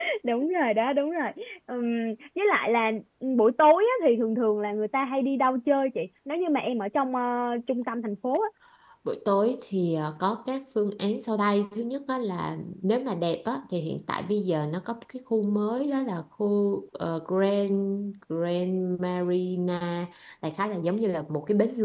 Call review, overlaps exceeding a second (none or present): none